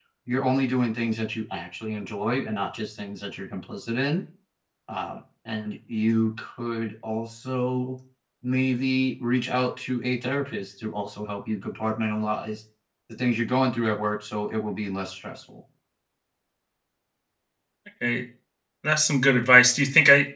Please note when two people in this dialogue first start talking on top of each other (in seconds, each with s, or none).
none